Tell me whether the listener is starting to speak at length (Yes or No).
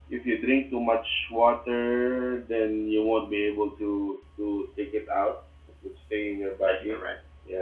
No